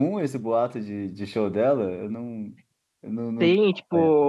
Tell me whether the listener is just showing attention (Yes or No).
No